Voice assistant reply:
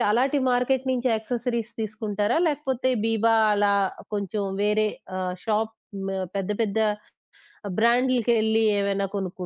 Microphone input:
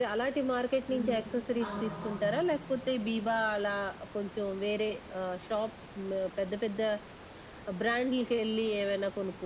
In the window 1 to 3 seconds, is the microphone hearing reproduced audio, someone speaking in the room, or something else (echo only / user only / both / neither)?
both